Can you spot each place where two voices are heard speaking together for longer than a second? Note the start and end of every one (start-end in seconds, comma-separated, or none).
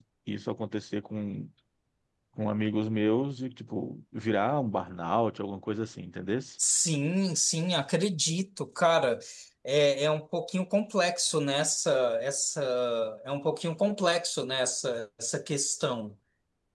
none